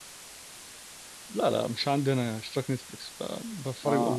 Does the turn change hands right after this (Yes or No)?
Yes